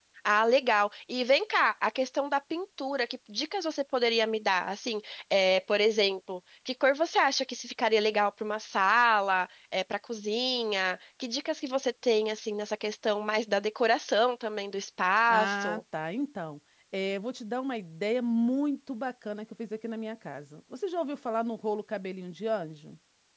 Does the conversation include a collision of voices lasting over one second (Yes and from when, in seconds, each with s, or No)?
No